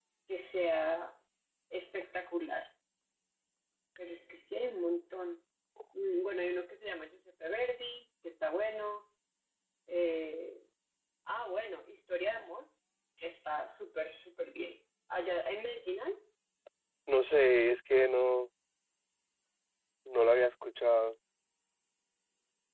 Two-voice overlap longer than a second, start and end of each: none

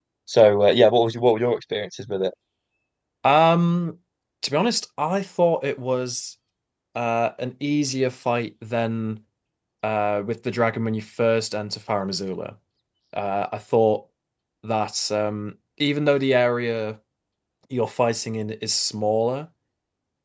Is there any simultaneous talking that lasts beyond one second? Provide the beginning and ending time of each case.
none

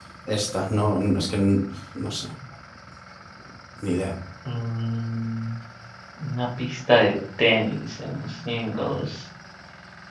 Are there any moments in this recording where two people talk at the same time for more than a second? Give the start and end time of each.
none

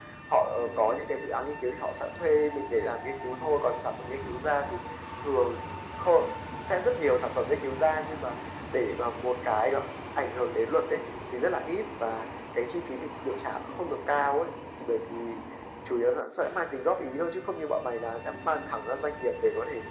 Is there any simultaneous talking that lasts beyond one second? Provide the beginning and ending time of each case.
none

